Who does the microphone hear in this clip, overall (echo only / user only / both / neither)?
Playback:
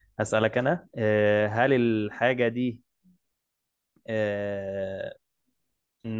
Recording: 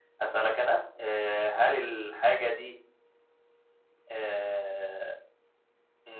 echo only